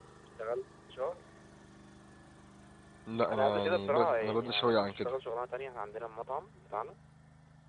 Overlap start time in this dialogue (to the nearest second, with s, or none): 3 s